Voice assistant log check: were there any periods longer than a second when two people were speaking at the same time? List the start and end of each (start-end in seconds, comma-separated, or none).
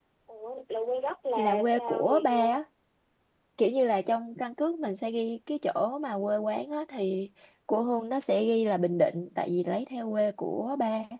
1.4-2.6